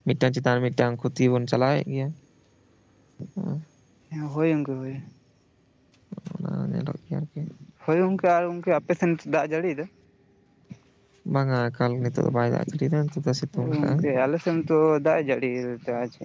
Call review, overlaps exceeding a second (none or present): none